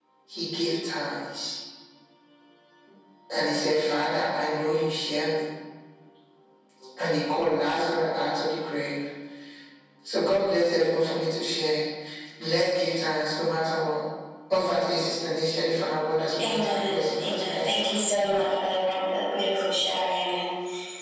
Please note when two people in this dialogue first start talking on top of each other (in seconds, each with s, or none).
16.4 s